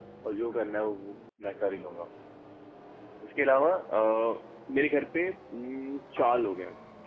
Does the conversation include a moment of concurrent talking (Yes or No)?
No